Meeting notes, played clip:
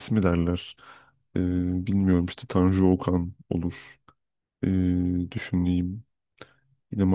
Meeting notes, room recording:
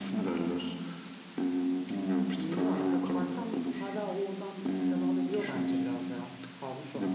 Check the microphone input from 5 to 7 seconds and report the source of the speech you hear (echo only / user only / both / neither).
both